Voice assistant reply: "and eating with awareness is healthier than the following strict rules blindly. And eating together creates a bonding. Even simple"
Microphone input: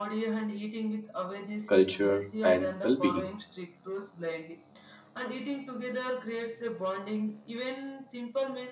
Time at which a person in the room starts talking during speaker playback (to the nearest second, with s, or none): 2 s